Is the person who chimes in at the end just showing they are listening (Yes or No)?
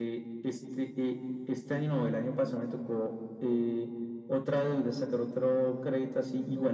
Yes